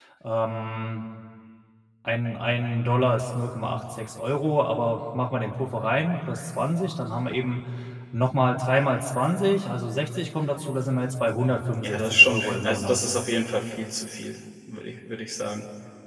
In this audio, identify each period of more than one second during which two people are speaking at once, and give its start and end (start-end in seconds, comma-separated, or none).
11.8-13.0